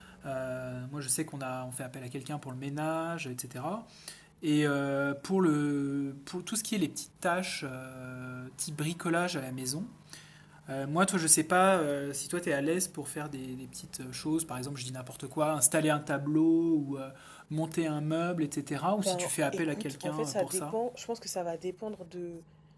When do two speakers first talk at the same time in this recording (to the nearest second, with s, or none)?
19 s